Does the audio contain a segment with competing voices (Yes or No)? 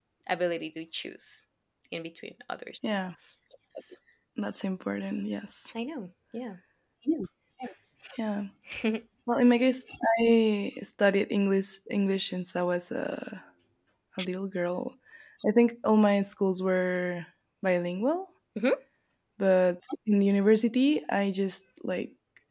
No